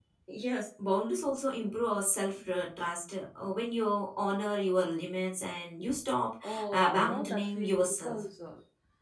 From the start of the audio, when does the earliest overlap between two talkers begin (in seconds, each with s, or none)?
6.7 s